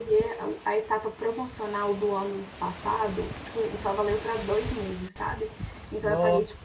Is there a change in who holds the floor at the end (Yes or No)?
No